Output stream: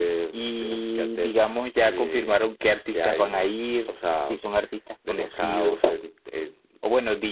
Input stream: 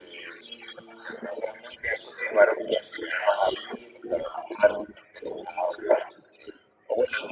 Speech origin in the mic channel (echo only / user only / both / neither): echo only